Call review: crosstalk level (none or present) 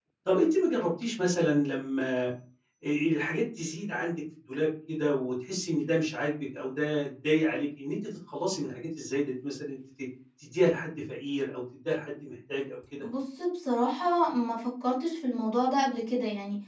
none